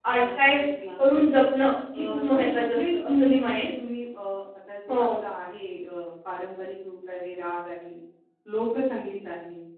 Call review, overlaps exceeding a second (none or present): present